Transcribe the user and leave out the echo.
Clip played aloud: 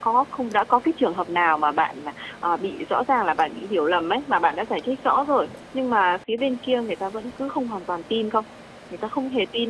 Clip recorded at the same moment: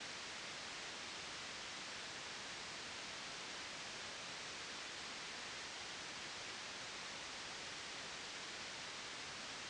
none

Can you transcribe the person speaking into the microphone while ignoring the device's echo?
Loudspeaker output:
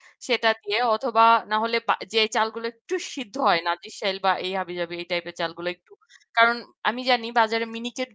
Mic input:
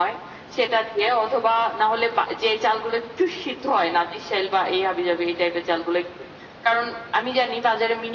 none

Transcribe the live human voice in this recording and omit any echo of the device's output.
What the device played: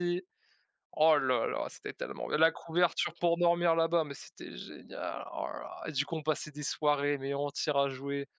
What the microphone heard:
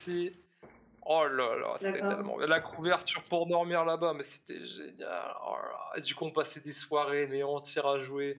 D'accord.

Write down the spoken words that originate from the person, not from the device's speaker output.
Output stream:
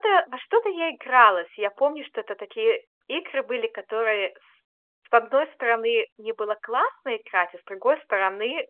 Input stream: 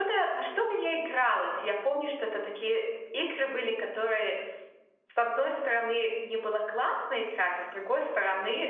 none

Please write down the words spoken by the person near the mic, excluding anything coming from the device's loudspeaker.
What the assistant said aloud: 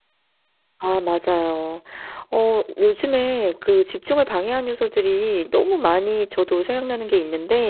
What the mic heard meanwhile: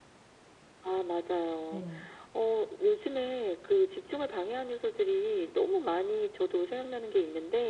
네.

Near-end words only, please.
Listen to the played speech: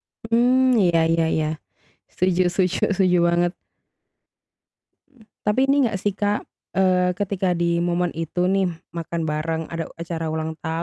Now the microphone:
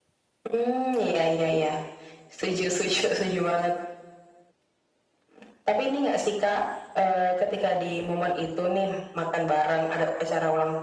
none

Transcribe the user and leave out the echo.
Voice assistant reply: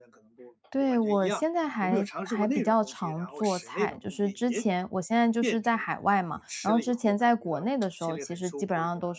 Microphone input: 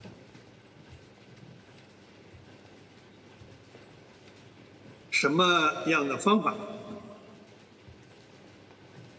什么样的方法？

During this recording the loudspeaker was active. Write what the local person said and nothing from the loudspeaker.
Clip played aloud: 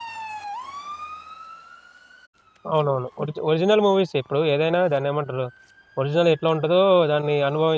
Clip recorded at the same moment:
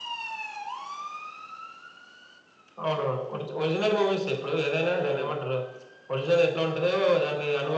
హ్మ్.

